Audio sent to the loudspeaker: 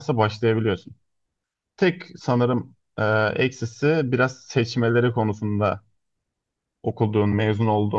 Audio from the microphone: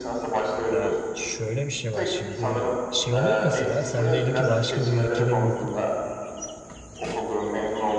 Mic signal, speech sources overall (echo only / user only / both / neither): both